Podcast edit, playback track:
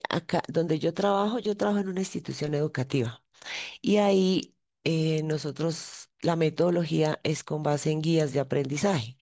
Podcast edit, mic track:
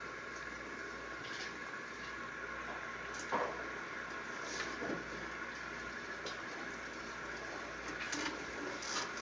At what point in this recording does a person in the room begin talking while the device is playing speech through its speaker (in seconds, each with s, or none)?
none